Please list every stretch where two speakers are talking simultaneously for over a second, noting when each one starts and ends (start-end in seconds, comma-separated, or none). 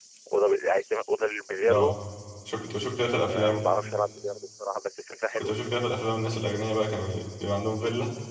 none